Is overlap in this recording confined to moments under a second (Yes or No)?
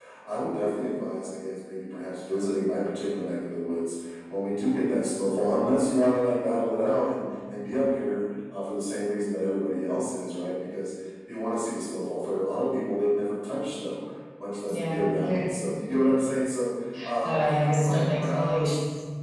No